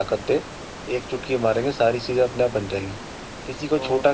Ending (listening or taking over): listening